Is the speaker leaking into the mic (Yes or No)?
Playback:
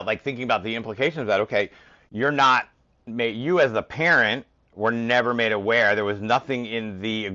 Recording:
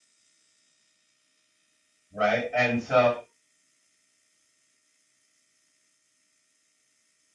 No